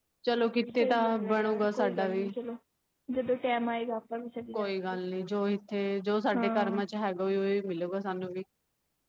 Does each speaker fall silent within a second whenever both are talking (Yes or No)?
No